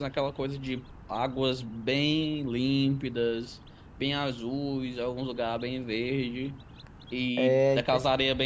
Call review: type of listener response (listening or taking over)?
listening